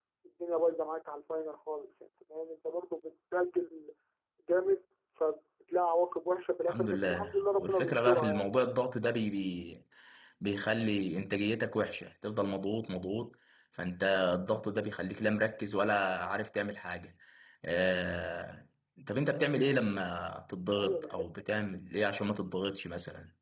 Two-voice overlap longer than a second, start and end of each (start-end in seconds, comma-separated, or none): 6.7-8.5